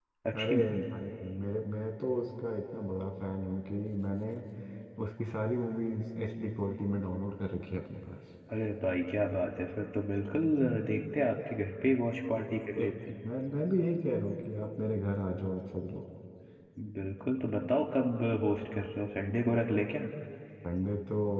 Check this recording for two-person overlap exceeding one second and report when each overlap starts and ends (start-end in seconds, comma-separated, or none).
none